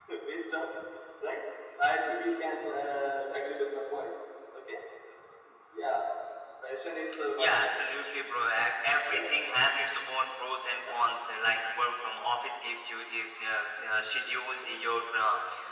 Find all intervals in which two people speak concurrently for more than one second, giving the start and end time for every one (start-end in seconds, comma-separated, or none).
none